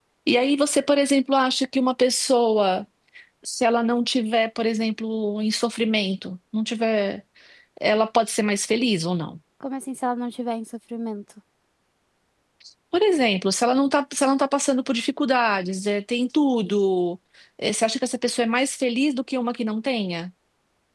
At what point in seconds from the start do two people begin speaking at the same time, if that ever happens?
none

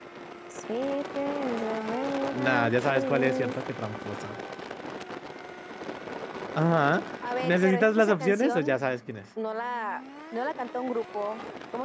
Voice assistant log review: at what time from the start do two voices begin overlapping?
2.3 s

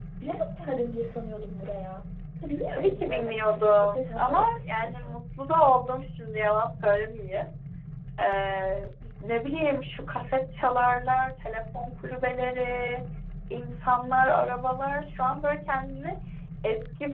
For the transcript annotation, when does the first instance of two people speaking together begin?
2.7 s

